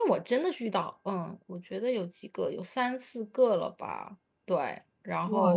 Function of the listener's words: taking over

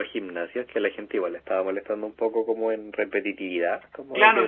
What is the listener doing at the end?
taking over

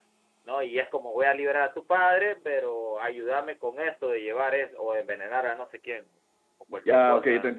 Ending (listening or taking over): taking over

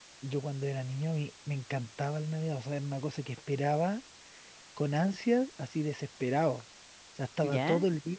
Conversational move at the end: listening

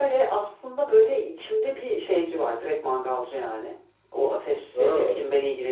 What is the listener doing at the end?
listening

